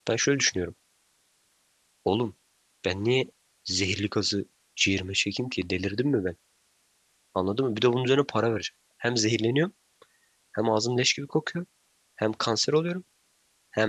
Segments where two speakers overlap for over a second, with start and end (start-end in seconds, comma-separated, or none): none